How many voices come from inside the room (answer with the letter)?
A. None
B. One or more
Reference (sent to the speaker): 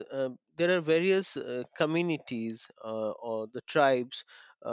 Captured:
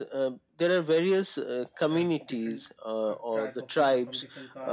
B